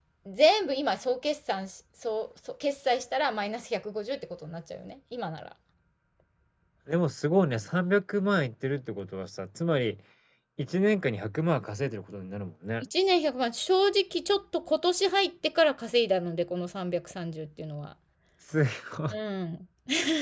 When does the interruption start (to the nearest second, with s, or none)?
none